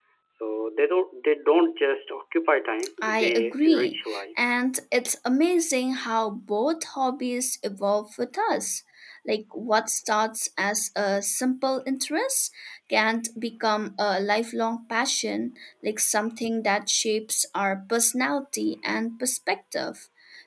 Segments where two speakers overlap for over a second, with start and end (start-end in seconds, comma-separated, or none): 3.1-4.5